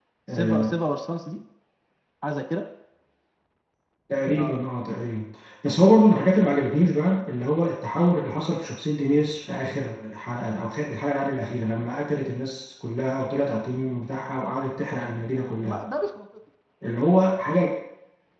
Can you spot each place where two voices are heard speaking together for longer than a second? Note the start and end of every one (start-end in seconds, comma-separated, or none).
none